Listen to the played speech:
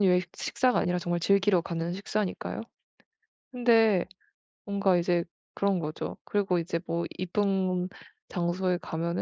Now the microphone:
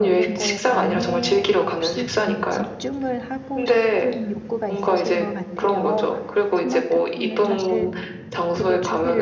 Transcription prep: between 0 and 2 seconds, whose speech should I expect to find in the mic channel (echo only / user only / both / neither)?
both